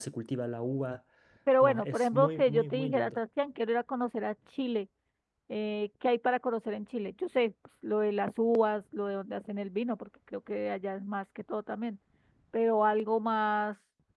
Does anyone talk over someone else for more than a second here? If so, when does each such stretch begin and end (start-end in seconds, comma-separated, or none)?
1.6-3.2